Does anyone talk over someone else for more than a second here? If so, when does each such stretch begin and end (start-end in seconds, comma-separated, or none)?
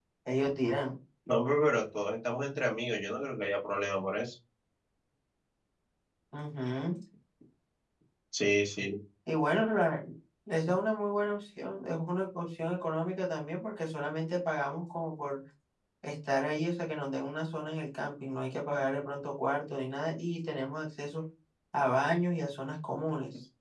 none